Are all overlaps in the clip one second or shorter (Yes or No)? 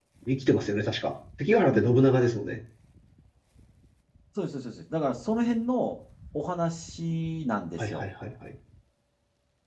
Yes